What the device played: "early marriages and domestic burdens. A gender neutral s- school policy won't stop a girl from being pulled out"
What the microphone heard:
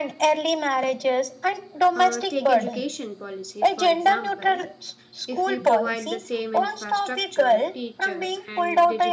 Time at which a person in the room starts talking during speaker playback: 2 s

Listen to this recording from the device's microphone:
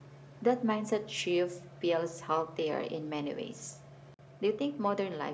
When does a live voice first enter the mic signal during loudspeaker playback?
none

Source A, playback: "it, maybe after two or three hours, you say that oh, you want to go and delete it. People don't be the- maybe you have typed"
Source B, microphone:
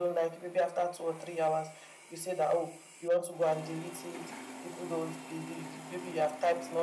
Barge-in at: none

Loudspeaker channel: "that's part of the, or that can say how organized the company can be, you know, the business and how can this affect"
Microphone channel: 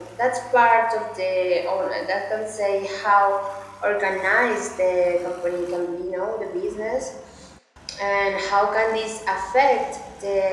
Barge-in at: none

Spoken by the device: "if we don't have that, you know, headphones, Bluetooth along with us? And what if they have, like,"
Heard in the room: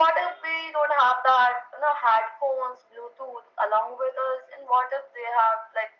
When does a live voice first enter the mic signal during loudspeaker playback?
none

